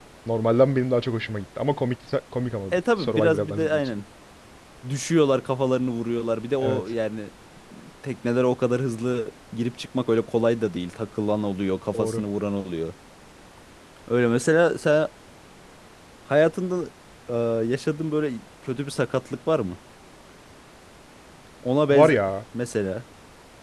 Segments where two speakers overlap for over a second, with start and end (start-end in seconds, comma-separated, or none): 2.7-4.0